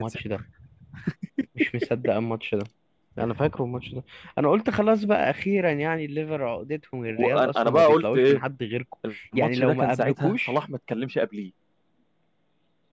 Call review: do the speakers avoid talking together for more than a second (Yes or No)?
No